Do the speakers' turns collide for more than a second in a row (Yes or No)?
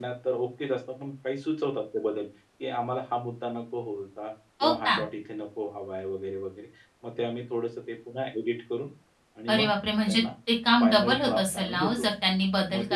Yes